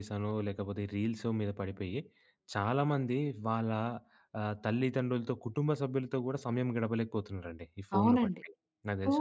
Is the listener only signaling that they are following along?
No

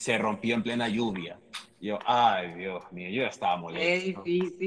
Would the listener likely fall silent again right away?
No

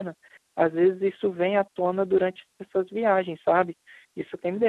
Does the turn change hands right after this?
Yes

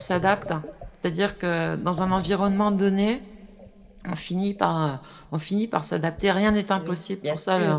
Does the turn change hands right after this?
Yes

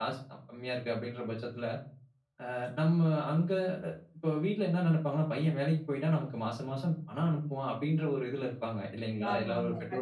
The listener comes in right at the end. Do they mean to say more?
Yes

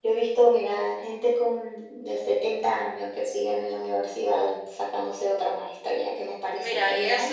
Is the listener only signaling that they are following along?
No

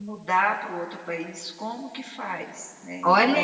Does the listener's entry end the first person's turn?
Yes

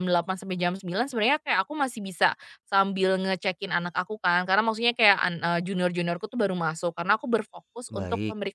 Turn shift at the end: No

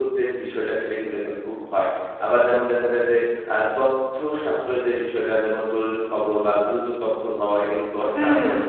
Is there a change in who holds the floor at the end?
No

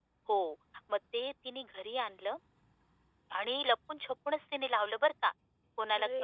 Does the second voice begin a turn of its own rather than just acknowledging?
No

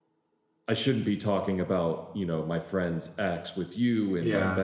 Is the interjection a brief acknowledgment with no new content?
Yes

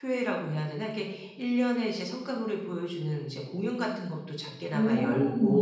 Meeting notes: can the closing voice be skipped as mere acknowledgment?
Yes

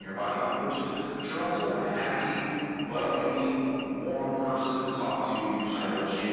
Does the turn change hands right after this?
No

